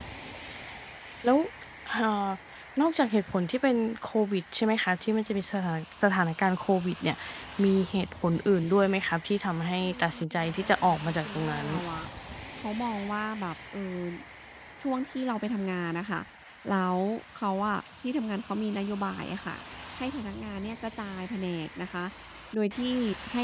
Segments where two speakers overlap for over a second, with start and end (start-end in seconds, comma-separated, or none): 9.8-11.7